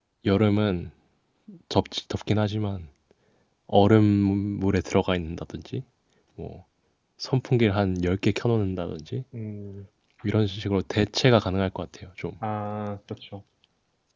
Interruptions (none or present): none